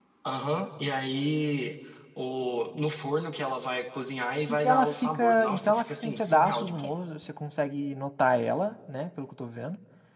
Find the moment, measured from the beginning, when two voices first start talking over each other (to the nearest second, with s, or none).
4 s